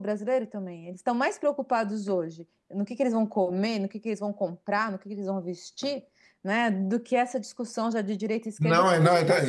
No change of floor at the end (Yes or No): No